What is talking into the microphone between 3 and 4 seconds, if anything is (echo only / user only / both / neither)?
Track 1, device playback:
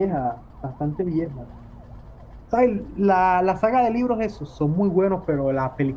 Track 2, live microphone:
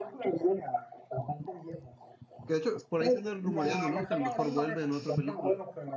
both